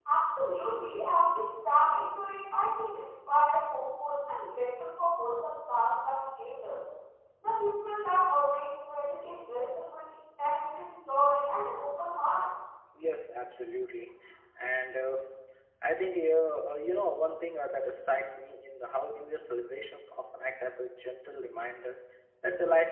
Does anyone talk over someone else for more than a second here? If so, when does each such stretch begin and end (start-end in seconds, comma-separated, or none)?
none